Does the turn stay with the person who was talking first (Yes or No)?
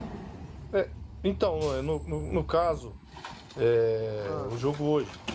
Yes